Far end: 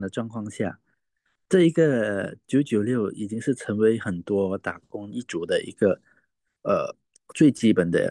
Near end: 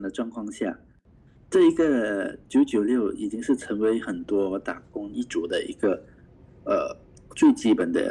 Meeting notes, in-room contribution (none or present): none